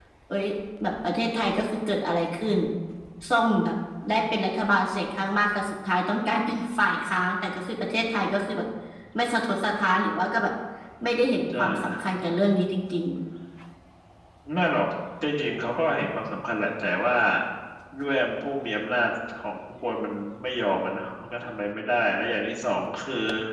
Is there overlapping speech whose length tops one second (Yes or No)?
No